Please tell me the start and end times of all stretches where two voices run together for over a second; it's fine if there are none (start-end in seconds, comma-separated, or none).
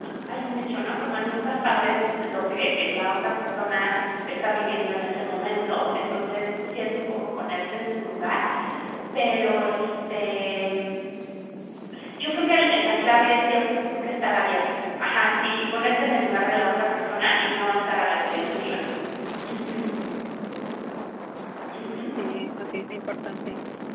none